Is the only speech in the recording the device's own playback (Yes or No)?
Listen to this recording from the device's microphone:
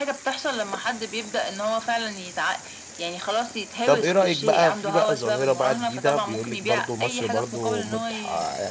No